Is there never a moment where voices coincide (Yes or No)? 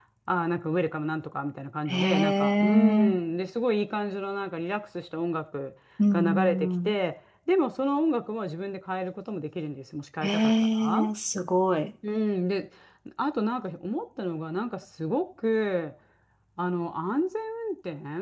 No